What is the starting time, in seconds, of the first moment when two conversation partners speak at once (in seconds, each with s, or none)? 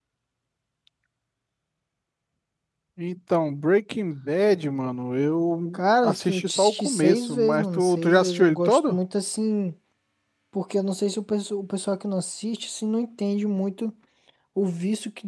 5.7 s